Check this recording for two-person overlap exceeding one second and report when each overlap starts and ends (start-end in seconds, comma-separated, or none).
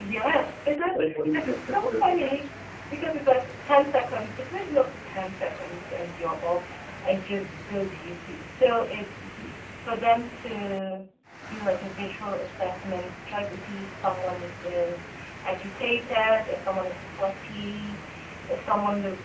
0.9-2.4